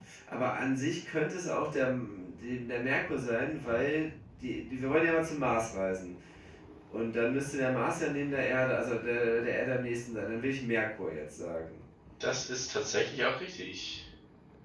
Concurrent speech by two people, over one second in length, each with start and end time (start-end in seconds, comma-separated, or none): none